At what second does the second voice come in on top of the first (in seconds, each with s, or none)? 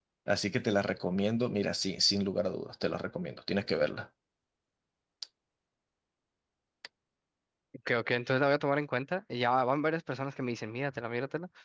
none